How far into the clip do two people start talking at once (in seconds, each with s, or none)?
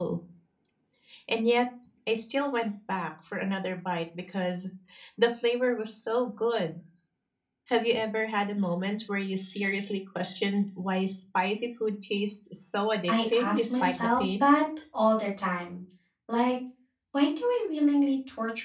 13.1 s